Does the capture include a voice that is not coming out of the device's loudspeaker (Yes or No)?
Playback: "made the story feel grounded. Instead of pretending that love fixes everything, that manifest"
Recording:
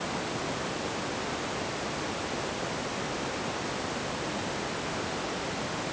No